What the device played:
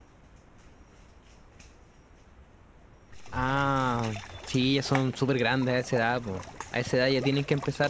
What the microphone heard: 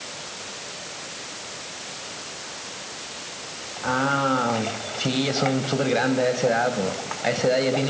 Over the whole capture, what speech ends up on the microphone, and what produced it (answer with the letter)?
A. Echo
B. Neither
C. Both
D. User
A